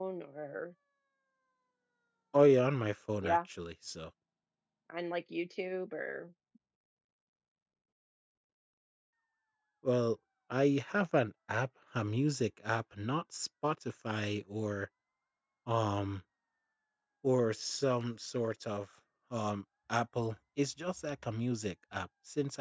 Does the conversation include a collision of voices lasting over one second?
No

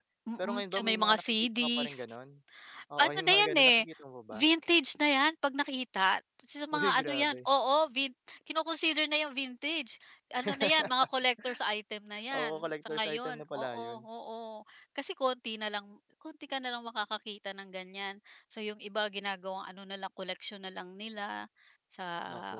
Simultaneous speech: Yes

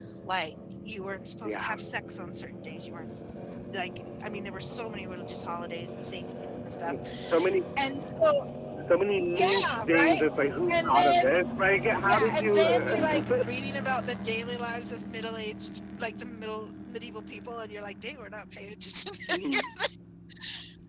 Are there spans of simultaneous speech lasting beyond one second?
Yes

